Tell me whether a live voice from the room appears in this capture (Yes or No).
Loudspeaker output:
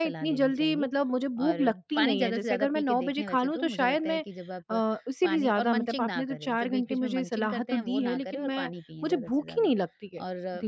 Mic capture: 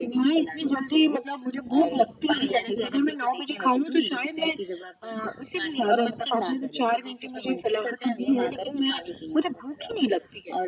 No